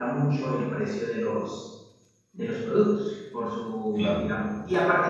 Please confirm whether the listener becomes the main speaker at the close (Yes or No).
No